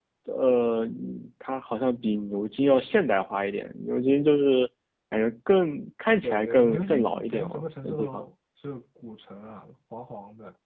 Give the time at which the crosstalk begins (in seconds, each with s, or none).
6.2 s